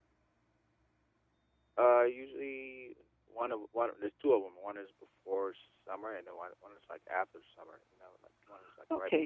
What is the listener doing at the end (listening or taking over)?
taking over